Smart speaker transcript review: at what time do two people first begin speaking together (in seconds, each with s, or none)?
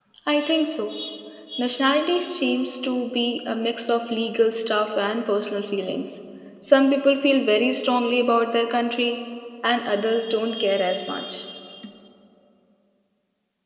none